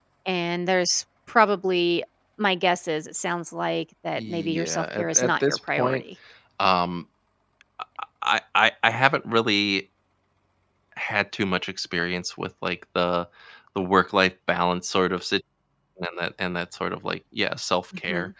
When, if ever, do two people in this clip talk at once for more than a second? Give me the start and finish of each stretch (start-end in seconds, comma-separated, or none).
4.2-6.0